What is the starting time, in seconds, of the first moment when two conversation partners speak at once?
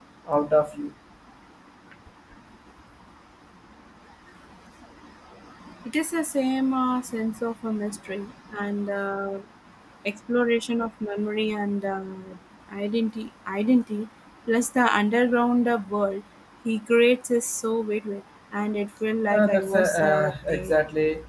19.3 s

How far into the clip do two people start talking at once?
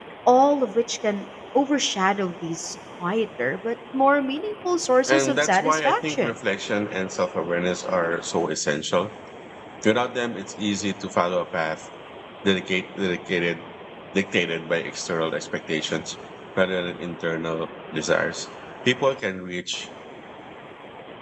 5.0 s

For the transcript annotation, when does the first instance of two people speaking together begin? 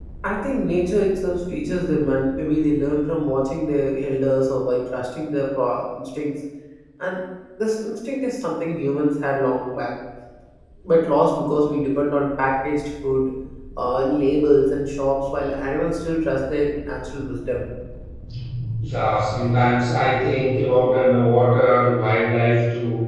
none

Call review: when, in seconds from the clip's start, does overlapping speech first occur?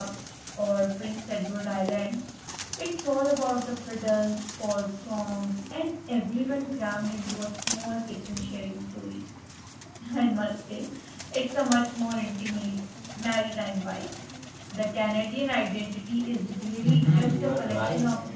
16.8 s

